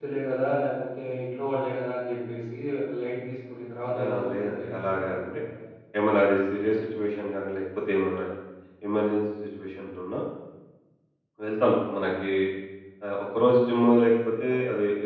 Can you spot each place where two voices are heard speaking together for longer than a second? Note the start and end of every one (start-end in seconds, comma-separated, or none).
4.0-5.4